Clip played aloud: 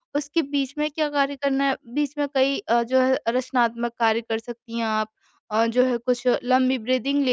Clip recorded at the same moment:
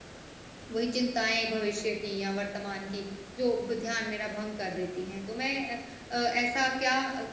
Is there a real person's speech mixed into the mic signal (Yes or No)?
Yes